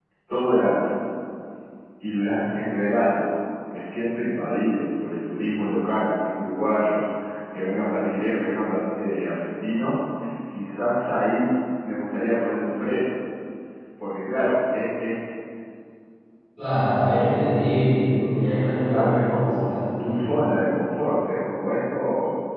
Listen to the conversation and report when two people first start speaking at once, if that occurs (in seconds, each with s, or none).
18.8 s